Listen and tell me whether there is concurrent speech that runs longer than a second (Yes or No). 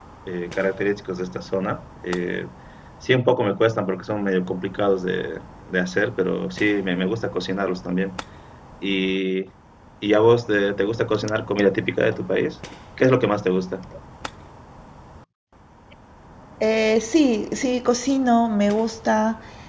No